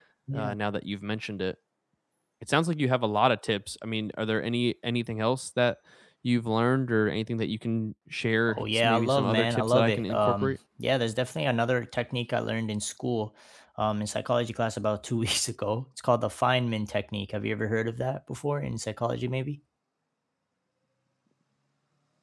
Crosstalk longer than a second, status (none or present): present